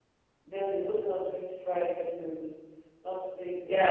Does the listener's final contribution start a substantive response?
Yes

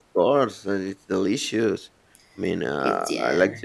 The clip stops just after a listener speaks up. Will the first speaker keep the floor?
Yes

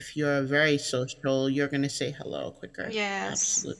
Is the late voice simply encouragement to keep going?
No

